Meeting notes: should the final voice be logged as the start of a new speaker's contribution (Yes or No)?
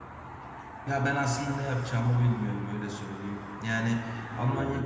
No